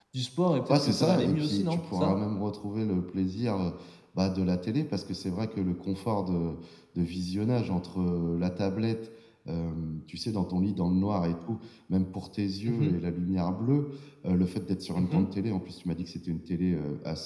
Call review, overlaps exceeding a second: present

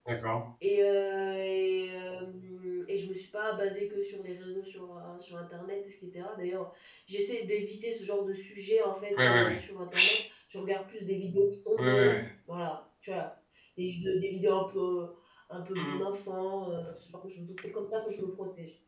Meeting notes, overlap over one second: none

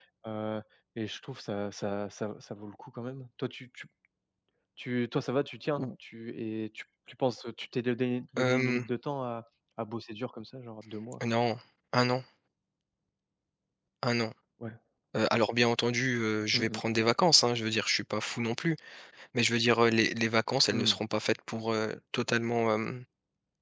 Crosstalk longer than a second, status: none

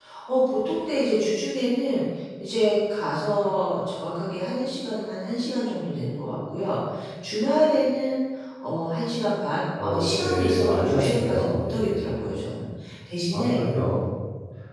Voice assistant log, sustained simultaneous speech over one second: present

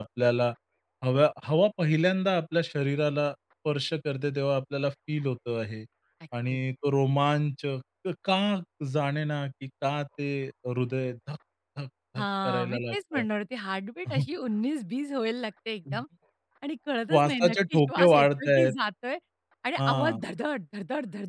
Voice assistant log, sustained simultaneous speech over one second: present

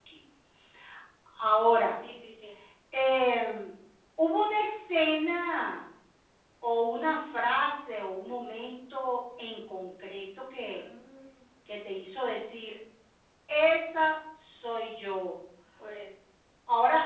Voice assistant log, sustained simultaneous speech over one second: none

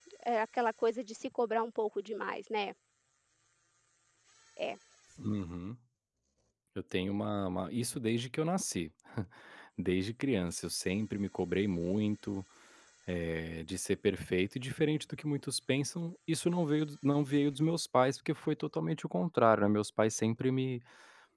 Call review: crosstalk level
none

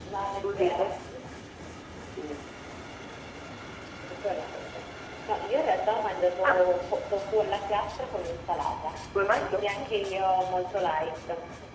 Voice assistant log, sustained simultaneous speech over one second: none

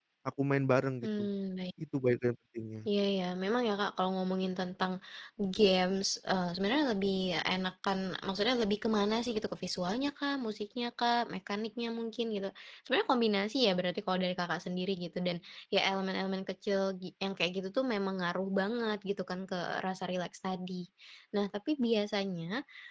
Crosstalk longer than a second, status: none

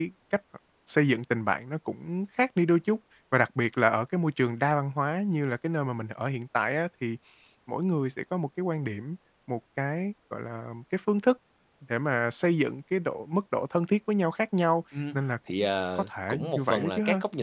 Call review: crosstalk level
present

